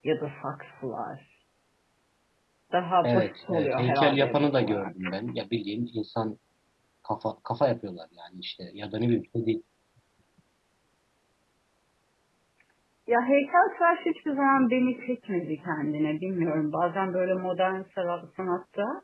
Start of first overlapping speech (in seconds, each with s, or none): 3.0 s